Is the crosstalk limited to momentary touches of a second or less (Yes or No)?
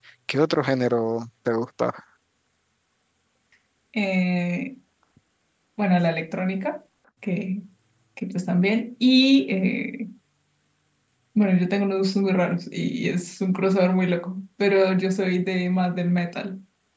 Yes